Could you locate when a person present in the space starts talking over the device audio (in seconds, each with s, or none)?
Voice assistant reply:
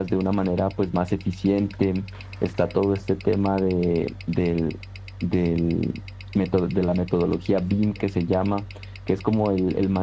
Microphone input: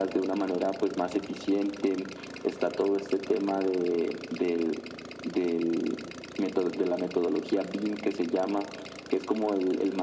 none